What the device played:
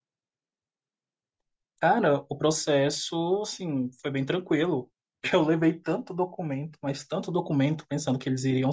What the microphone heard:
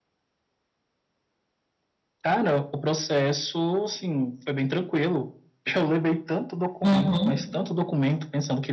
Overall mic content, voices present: both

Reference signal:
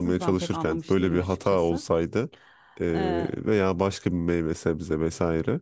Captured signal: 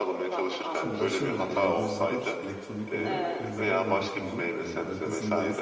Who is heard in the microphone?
both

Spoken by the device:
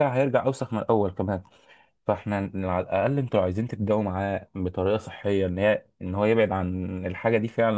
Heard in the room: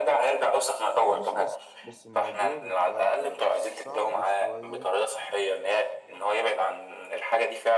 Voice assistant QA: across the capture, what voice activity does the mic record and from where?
both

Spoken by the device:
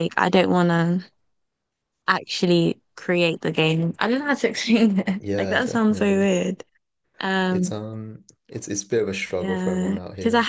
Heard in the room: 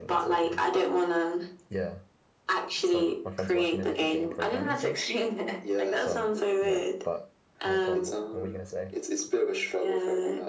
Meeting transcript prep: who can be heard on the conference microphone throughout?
both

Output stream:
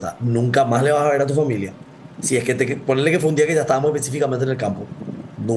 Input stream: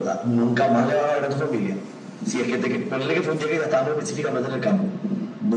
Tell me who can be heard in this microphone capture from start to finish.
echo only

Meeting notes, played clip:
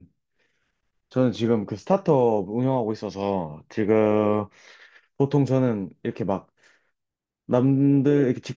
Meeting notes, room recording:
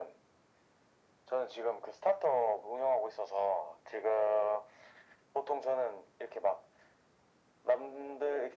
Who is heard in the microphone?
echo only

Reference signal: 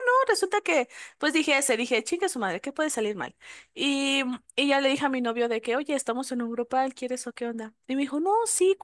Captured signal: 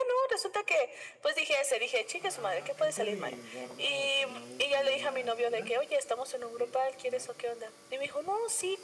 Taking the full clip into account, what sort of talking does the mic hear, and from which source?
both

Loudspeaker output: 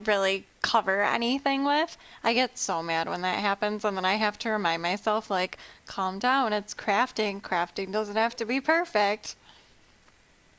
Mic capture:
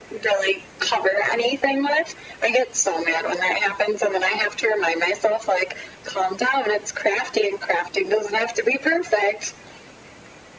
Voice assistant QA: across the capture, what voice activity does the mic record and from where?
echo only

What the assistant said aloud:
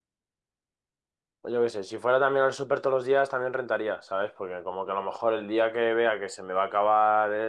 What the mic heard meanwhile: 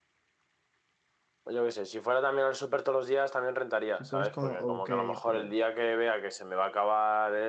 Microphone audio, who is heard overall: both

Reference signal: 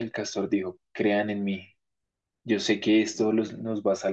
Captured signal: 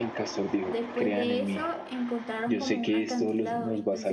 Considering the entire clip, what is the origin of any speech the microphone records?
both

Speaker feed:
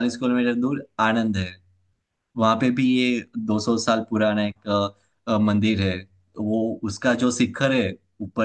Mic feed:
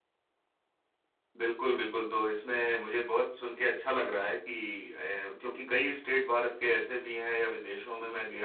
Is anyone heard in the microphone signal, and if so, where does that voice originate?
user only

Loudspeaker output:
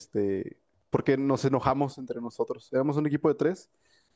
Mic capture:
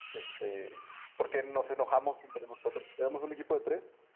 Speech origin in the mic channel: echo only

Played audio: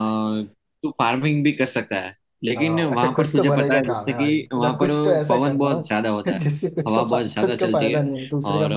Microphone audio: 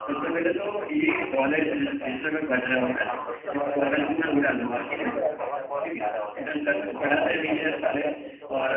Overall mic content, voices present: both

